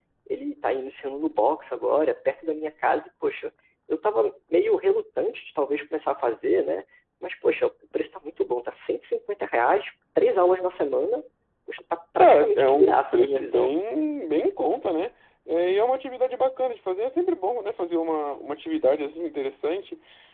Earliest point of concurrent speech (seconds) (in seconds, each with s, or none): 12.2 s